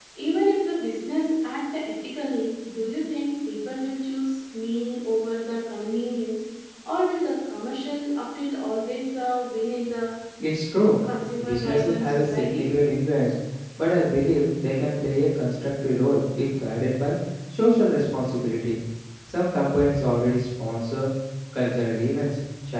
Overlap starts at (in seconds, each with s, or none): 11.4 s